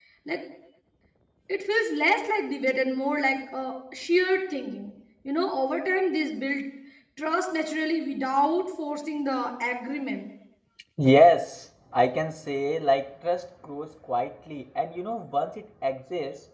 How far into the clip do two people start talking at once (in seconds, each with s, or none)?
none